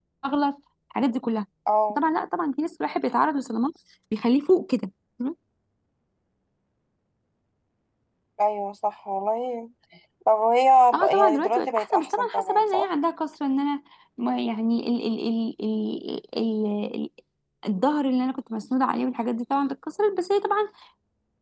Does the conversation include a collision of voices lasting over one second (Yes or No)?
Yes